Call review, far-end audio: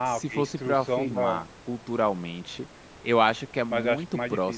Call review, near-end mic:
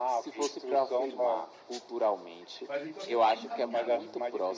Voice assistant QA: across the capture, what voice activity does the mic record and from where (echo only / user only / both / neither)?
both